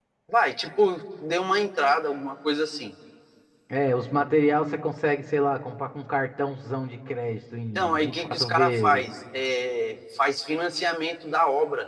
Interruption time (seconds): 7.8 s

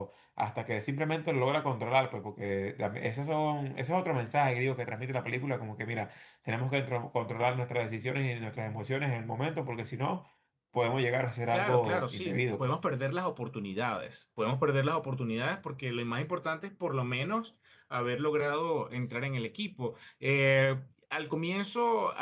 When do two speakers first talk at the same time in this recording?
11.5 s

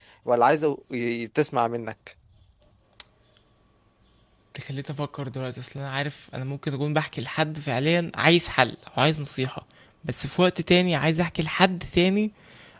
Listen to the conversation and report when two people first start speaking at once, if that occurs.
none

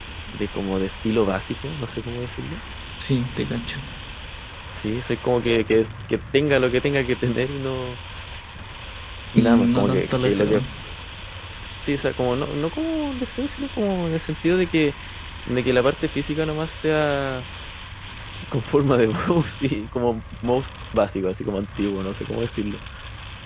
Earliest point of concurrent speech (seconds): 9.4 s

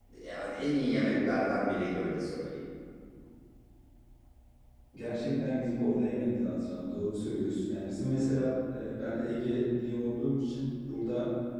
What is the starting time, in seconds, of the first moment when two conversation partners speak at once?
none

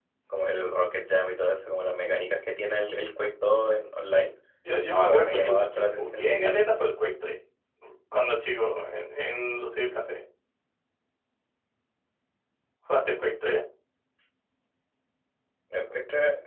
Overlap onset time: 5.0 s

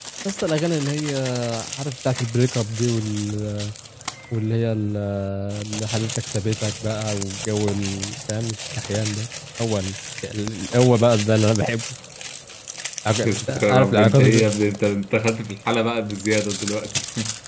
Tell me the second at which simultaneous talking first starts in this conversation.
13.2 s

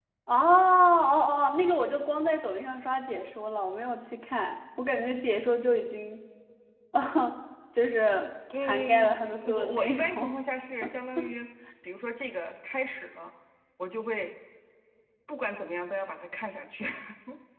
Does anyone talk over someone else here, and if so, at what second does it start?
8.5 s

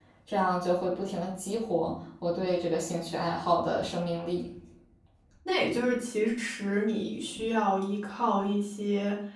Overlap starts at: none

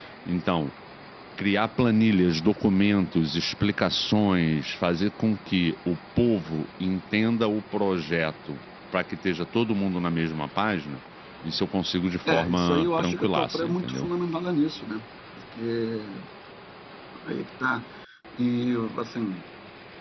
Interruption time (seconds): 12.3 s

